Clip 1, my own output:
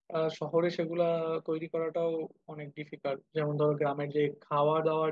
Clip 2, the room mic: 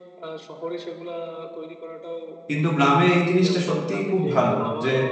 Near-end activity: present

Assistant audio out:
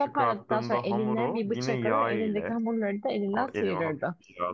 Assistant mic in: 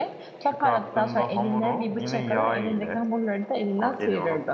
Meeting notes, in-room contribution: none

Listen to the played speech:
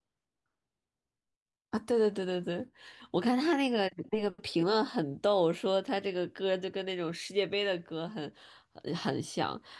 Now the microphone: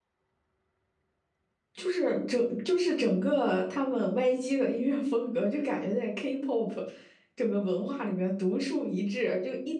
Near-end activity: present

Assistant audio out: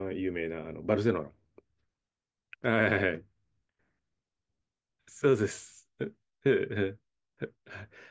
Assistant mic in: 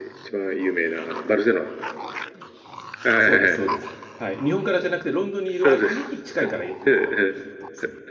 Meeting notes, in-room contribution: present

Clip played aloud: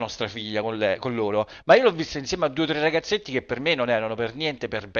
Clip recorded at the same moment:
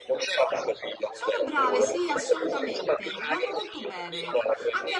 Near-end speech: present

